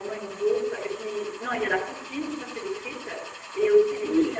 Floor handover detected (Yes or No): Yes